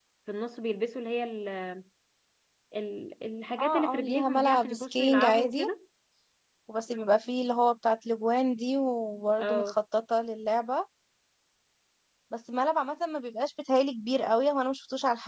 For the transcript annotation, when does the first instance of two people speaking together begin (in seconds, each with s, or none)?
3.6 s